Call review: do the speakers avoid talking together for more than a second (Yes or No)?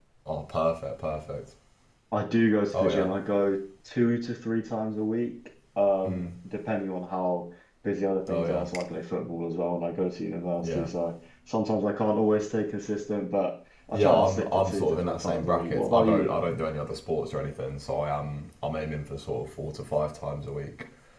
No